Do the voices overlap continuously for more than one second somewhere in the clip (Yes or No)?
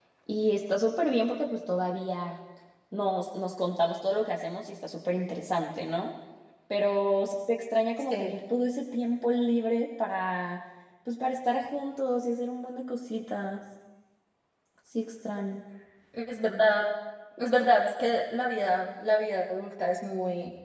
No